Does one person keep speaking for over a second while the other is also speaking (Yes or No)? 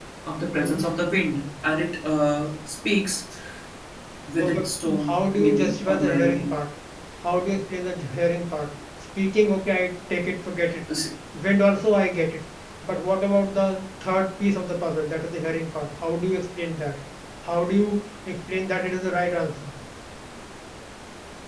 Yes